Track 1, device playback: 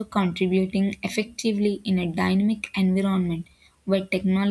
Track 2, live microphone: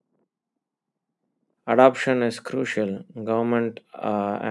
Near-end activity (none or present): present